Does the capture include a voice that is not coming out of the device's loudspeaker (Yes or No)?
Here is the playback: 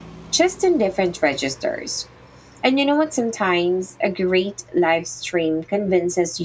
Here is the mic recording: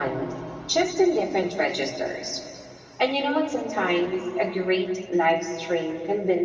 No